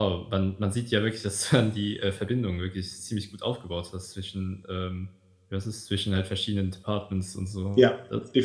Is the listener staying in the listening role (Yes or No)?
No